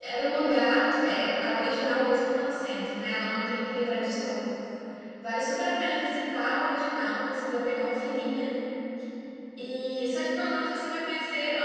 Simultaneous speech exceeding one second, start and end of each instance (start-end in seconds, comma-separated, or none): none